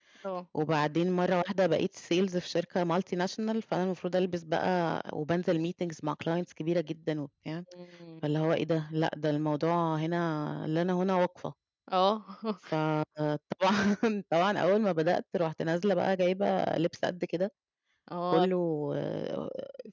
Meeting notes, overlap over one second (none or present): none